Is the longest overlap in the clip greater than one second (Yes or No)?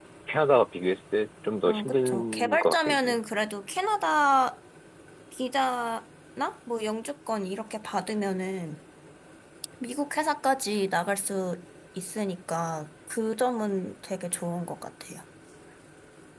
Yes